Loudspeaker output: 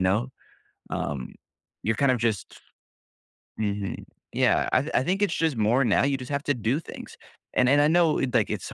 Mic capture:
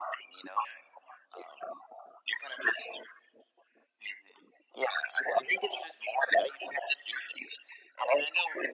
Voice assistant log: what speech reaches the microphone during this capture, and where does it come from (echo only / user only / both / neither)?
echo only